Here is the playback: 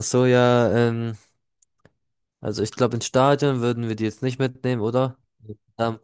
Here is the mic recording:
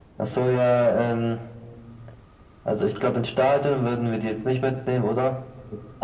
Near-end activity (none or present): none